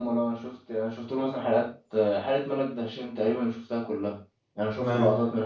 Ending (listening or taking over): listening